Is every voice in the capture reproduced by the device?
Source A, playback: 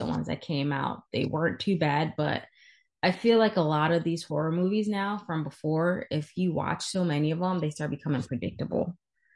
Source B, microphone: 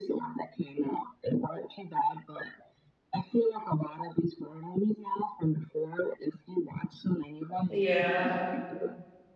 No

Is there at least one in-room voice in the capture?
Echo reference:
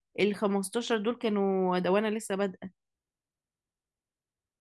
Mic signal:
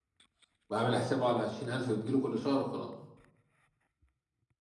Yes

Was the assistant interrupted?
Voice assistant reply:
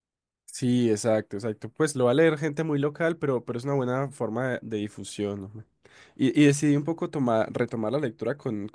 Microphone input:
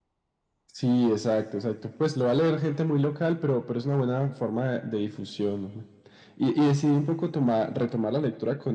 No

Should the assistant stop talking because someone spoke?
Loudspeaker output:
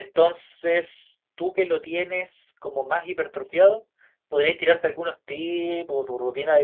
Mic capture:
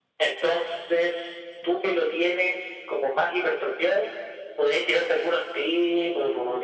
No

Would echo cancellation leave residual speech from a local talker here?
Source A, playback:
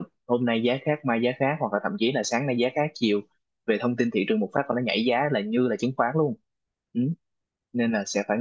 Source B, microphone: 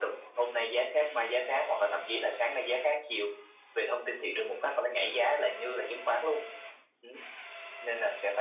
No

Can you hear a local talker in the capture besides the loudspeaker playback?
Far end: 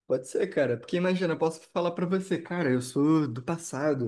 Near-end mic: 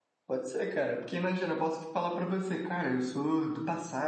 No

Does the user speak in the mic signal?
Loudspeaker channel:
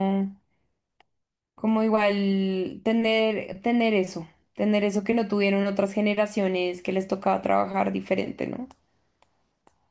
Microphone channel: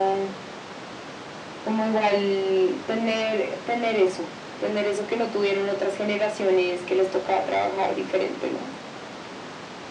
No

